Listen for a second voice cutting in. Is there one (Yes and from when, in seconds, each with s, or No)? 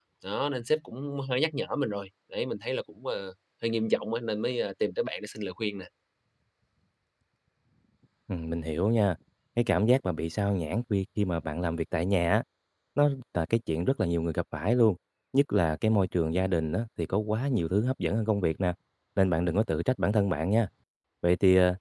No